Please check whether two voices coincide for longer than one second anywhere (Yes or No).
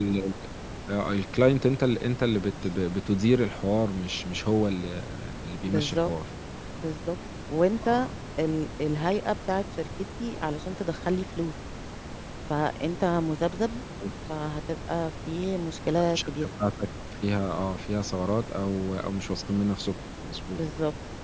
No